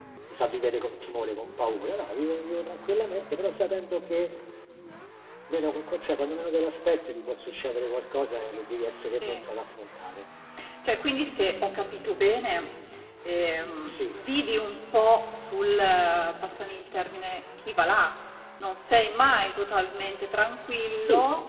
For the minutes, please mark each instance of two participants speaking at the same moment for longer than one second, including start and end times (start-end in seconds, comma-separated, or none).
none